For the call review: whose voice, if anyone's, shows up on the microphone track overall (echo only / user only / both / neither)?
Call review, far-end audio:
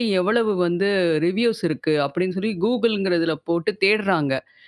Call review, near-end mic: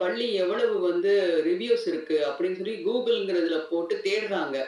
echo only